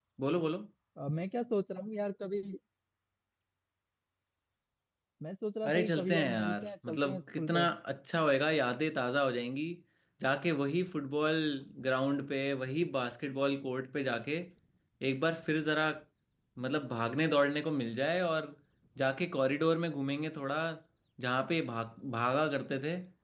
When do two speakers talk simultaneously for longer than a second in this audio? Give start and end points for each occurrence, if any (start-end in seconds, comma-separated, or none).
5.7-7.7